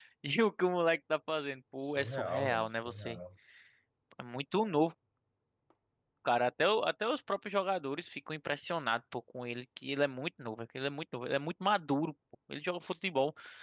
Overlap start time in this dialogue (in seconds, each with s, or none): 2.0 s